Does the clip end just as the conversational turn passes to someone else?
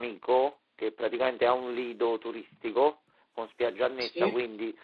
No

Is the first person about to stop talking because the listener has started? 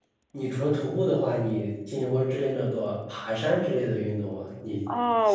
Yes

